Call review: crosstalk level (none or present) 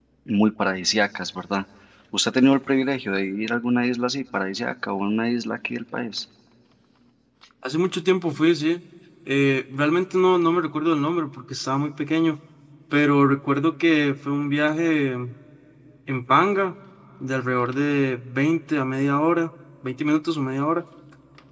none